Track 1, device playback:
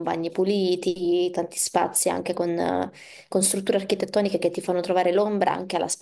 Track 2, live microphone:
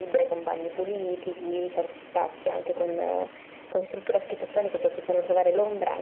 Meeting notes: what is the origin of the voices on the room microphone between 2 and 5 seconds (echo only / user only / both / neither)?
echo only